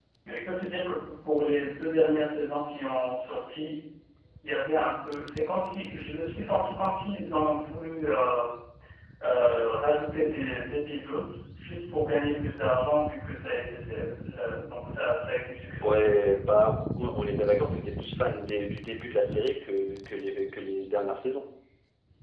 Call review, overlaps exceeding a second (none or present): none